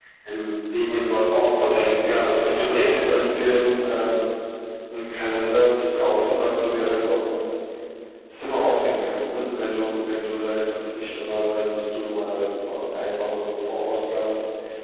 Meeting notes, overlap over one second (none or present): present